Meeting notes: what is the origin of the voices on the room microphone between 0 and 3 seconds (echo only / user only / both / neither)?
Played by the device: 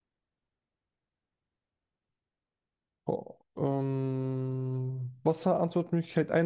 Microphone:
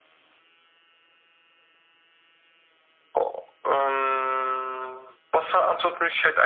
neither